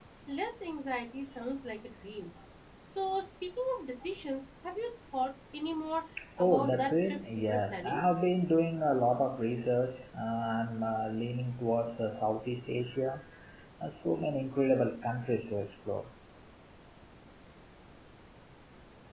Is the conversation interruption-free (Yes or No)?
No